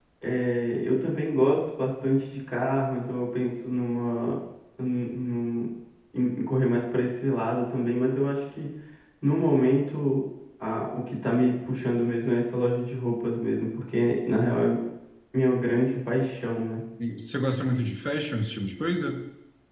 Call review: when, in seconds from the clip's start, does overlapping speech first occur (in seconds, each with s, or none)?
none